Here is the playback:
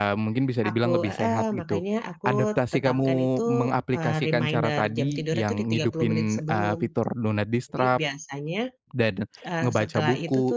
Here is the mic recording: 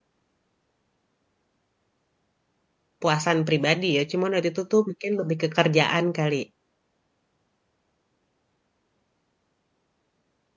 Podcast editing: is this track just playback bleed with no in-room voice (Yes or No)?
No